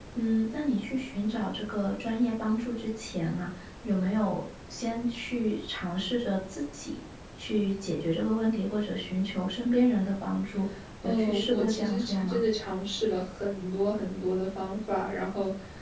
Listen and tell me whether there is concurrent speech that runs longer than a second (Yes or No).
Yes